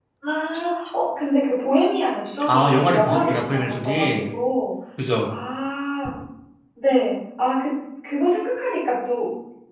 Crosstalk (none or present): present